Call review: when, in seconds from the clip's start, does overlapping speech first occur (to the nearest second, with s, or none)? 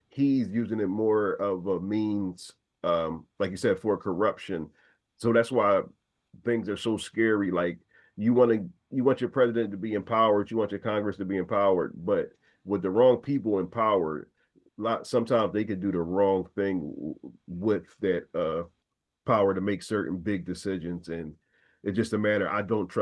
none